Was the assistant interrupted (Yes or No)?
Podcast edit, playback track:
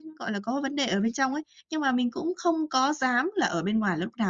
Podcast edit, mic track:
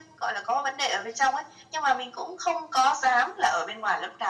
No